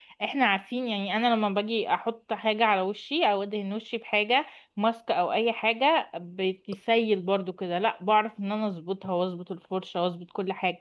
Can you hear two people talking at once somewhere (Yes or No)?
No